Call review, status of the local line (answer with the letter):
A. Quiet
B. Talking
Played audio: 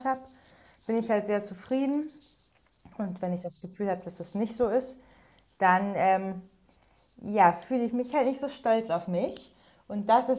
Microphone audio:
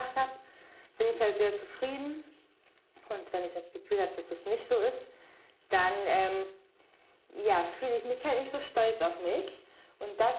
A